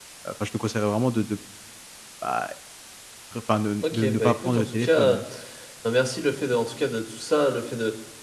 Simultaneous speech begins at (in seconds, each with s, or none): 3.8 s